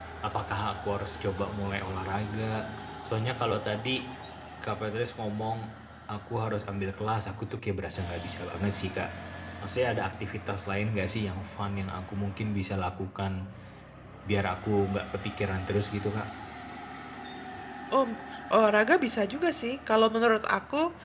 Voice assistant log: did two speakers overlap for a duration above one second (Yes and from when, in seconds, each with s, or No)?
No